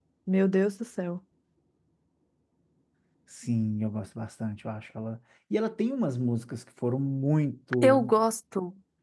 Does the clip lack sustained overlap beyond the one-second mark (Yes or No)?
Yes